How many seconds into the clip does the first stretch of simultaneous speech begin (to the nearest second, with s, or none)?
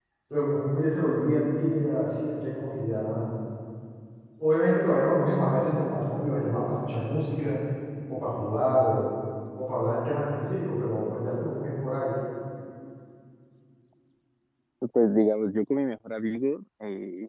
none